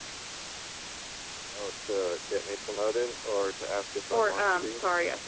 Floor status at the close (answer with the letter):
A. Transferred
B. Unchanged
A